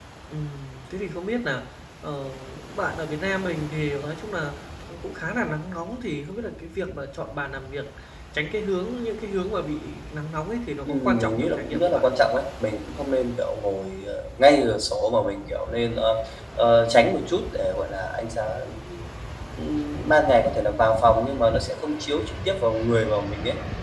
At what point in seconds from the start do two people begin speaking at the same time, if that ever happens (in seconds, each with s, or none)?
10.8 s